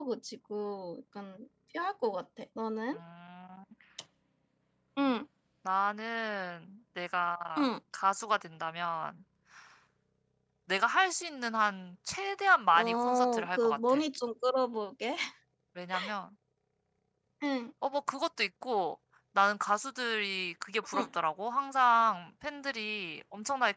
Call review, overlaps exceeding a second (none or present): present